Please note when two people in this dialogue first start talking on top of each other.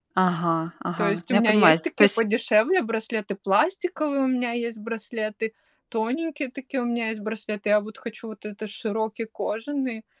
1 s

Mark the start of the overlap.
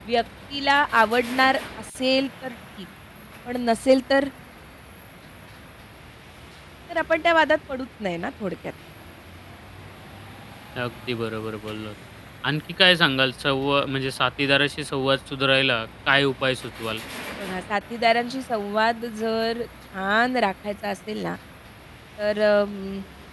none

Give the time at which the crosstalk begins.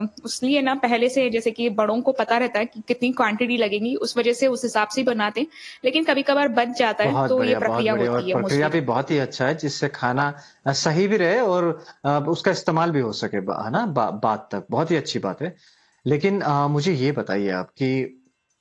7 s

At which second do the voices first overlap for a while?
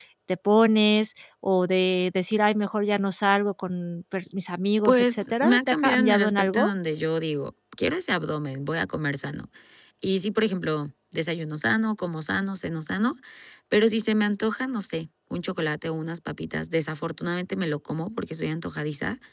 5 s

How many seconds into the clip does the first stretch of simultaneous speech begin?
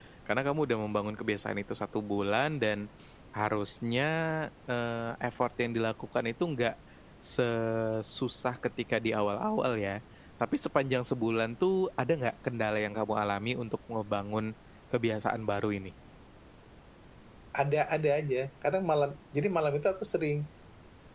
none

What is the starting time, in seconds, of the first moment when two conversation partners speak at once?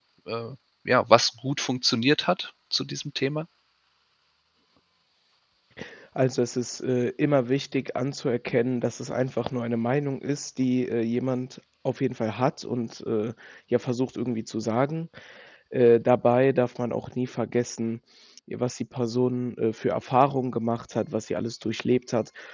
none

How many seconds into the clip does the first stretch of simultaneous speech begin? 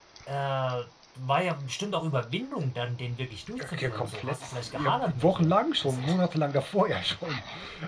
4 s

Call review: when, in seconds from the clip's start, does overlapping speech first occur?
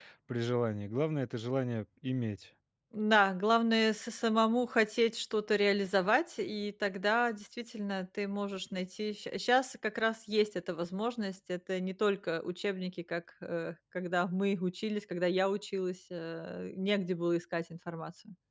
none

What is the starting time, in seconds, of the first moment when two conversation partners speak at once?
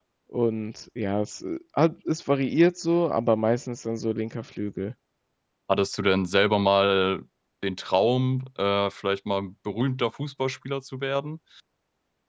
none

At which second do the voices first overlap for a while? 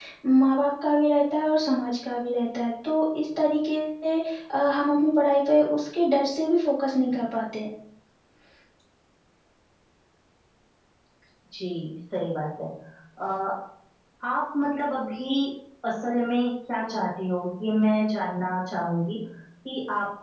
none

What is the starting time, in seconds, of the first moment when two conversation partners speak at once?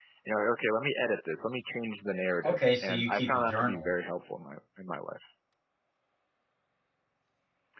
2 s

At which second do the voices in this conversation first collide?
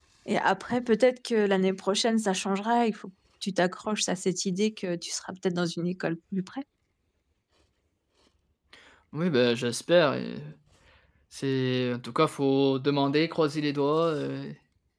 none

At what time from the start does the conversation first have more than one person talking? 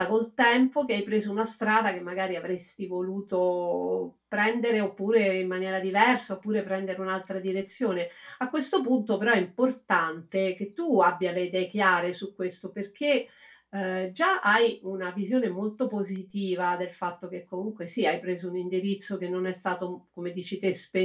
none

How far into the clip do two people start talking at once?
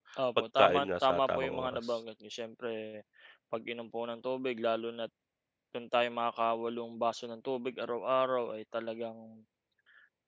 1 s

